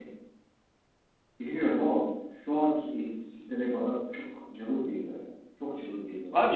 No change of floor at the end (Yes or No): No